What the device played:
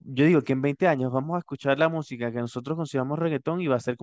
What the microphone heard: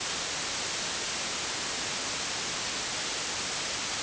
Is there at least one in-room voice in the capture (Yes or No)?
No